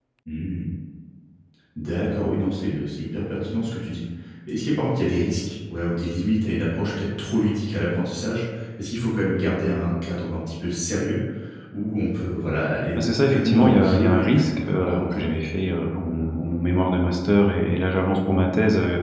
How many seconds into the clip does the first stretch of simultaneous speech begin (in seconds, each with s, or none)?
12.9 s